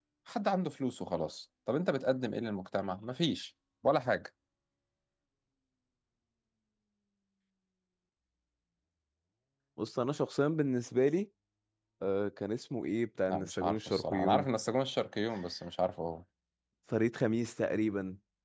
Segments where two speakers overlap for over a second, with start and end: 13.3-14.5

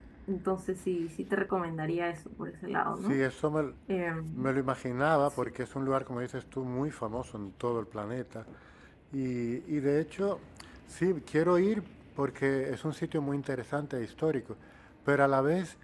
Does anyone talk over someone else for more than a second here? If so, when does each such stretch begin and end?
none

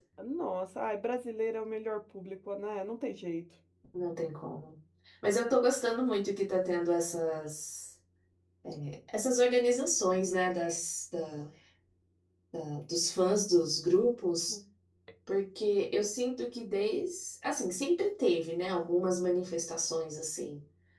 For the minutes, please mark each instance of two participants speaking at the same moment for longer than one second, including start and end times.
none

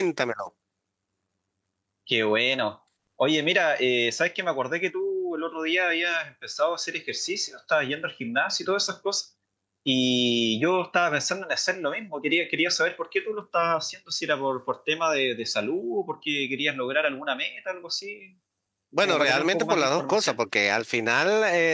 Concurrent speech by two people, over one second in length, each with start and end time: 19.0-20.4

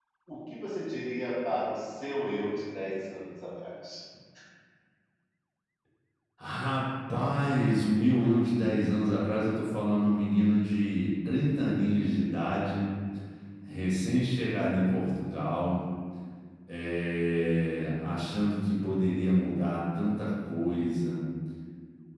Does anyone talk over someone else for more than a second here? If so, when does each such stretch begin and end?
none

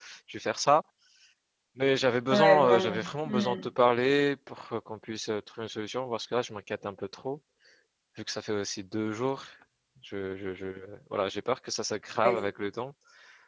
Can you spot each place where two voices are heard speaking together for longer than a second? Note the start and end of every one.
2.3-3.6

